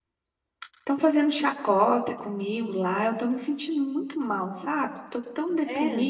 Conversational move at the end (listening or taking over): listening